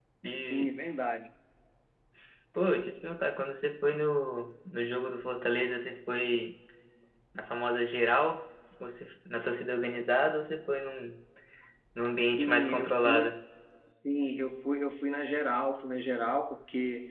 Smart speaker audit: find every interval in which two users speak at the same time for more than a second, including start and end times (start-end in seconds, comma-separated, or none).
12.1-13.3